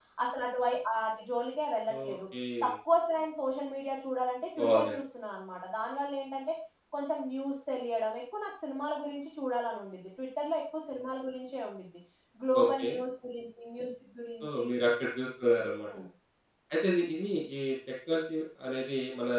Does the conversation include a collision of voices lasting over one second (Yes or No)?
No